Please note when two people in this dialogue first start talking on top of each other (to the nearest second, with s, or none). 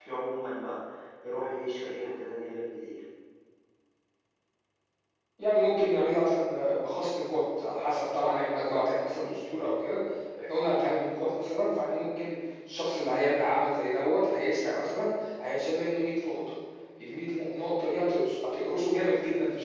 none